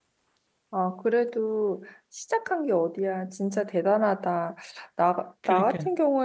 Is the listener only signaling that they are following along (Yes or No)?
Yes